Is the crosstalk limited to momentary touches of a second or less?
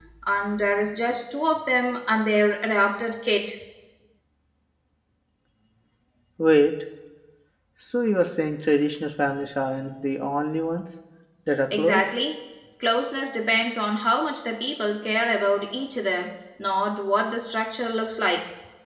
Yes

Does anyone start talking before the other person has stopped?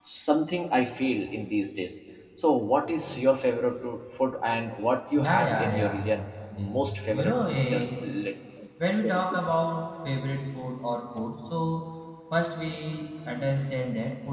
Yes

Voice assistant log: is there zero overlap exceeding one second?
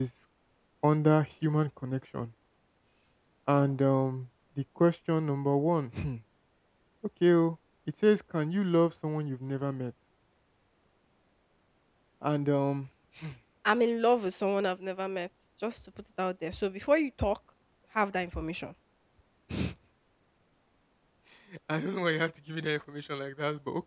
Yes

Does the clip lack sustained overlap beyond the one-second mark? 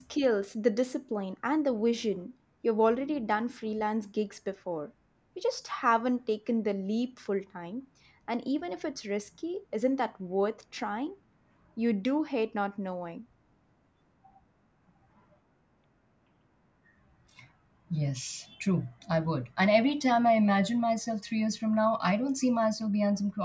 Yes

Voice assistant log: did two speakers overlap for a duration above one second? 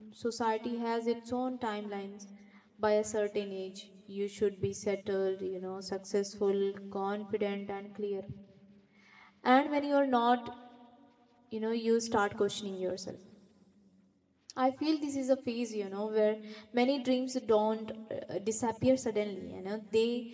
No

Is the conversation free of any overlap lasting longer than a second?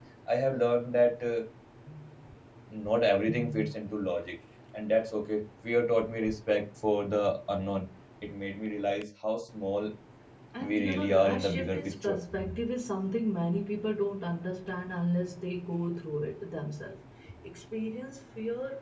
No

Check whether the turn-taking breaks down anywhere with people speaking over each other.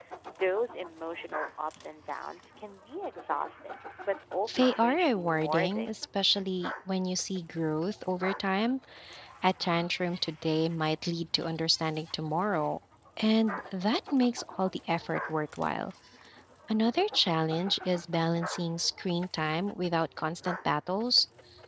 Yes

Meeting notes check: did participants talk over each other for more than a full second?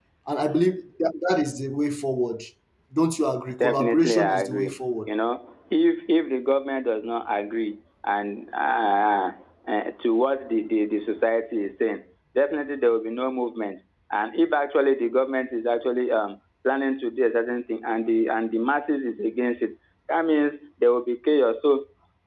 Yes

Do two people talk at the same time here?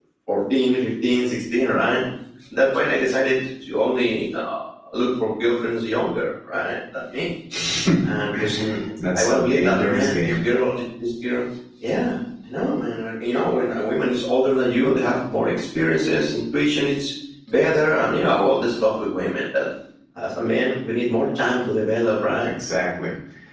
Yes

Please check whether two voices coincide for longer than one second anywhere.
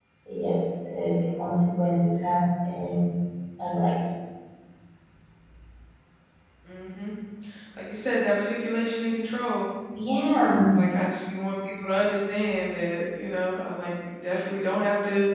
No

